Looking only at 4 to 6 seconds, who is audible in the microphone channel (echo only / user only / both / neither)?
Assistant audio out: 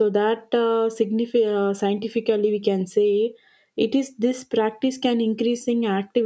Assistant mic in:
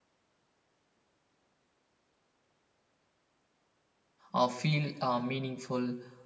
user only